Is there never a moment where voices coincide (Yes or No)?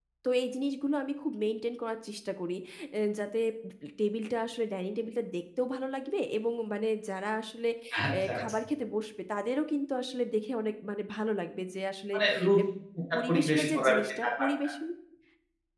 No